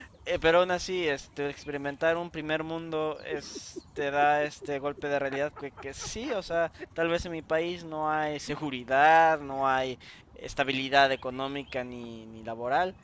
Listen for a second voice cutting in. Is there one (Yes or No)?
No